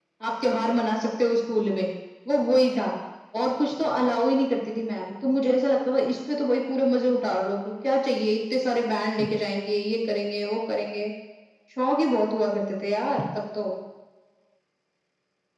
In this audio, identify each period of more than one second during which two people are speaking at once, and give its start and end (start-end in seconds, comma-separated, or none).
none